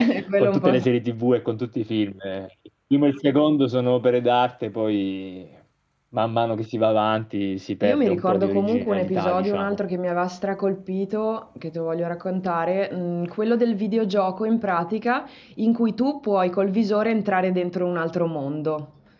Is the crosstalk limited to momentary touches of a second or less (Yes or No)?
No